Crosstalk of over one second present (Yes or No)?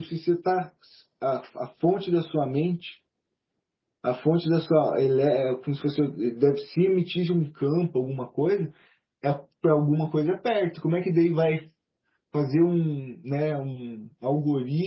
No